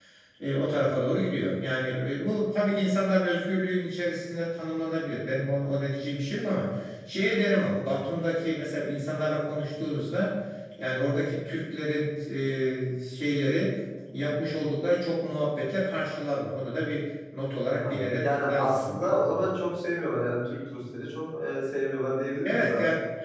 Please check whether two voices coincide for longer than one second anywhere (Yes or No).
Yes